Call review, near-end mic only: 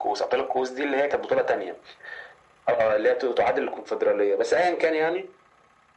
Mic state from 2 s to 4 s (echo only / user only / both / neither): echo only